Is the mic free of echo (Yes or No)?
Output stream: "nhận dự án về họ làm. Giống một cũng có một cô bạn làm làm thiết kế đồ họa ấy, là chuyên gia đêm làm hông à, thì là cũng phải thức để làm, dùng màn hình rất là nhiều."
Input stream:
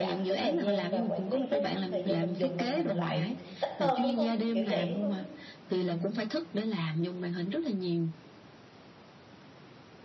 No